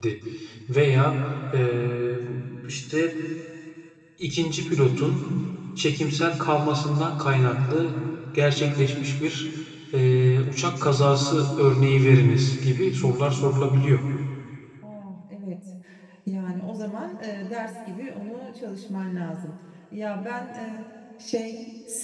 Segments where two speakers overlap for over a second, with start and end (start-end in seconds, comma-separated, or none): none